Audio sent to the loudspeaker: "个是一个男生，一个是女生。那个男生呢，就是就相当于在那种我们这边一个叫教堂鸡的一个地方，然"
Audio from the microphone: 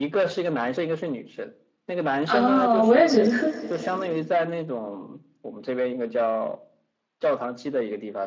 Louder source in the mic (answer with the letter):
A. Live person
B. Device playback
A